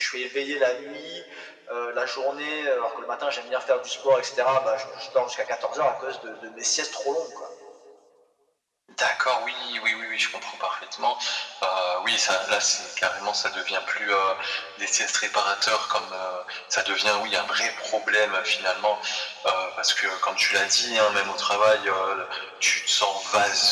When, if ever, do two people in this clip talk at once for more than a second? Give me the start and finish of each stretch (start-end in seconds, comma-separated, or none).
none